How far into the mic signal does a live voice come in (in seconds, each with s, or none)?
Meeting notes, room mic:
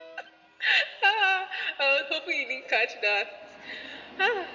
none